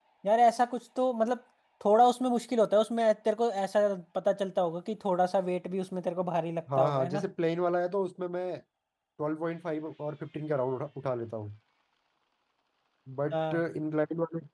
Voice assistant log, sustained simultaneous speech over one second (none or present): none